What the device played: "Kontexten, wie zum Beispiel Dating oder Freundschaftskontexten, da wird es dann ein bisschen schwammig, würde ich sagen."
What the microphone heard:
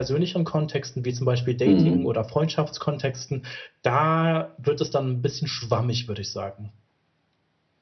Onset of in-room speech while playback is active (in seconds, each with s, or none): 1.7 s